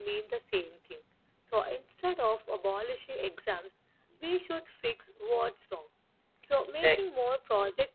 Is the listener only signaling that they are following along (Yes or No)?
Yes